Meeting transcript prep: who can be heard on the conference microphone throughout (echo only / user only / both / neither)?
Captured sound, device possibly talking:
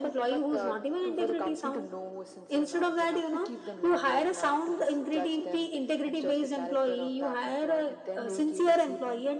echo only